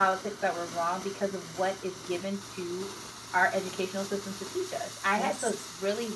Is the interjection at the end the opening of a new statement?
No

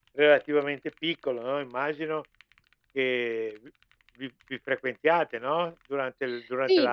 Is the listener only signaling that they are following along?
No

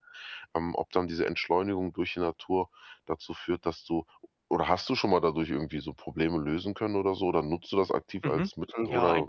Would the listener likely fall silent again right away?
No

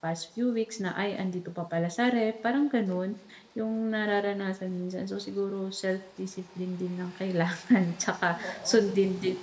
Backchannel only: Yes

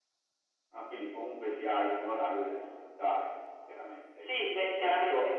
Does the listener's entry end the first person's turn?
Yes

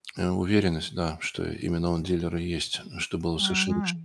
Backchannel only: No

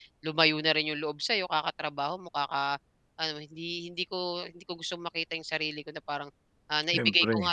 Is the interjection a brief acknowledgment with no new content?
Yes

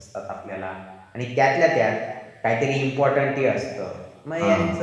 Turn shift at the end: No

